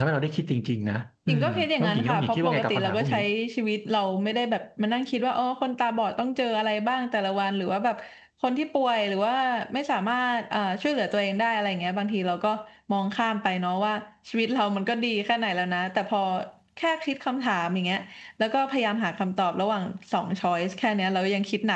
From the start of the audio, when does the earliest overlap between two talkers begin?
1.3 s

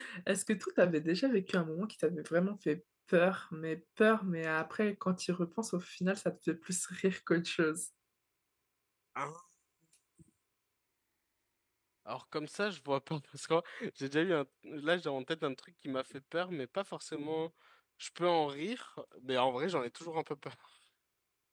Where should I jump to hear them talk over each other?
none

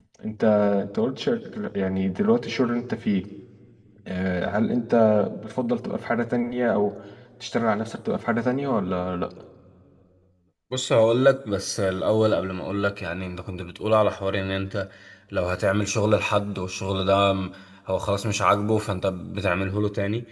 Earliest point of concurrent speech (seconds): none

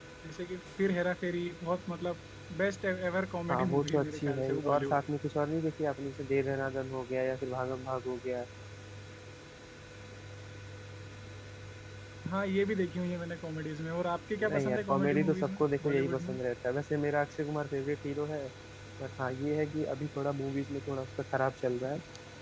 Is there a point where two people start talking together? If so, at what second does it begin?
3.5 s

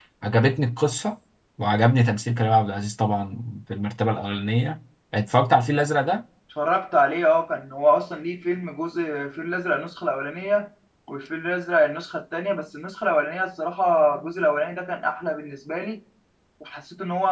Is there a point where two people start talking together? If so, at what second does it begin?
none

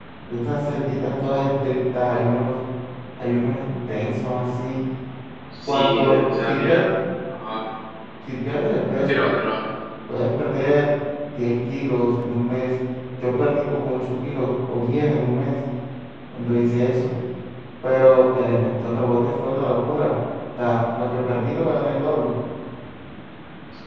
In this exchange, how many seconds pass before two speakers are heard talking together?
5.7 s

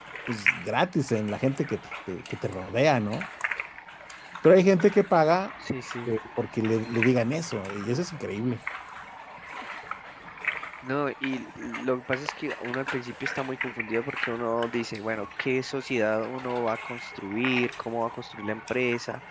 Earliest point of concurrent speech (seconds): none

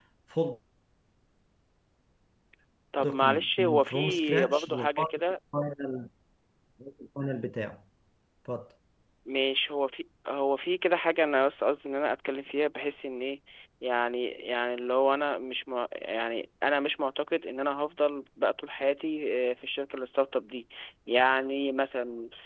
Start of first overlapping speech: 3.0 s

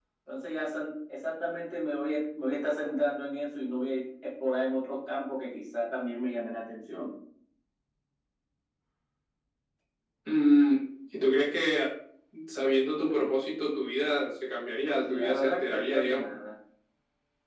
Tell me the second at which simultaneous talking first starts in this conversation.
15.0 s

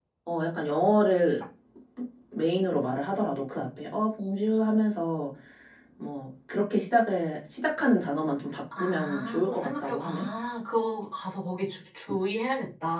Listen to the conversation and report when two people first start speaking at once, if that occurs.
8.7 s

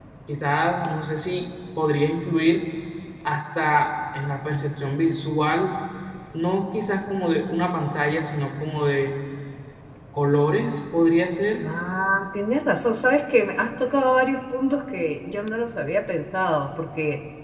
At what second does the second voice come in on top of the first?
none

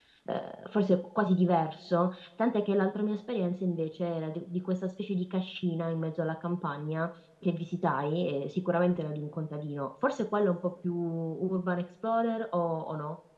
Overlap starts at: none

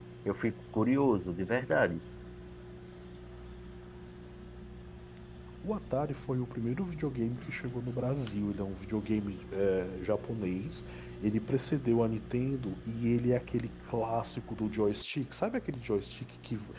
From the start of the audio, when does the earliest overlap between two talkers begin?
none

